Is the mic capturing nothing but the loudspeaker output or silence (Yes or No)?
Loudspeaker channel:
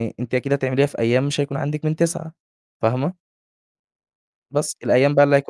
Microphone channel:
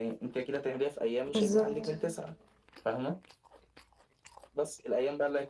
No